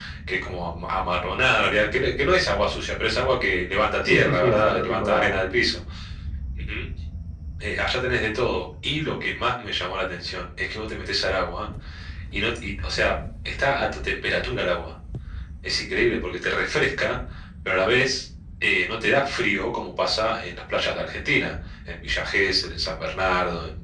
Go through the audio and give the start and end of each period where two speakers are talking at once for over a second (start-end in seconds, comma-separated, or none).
4.0-5.4